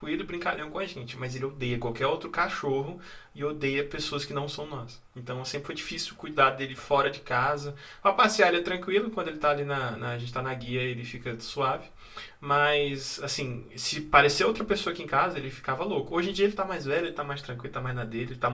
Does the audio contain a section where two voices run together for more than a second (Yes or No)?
No